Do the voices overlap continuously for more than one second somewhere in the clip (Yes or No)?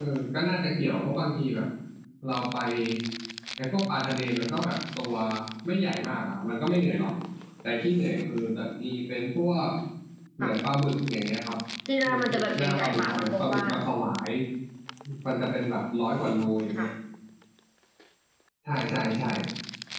Yes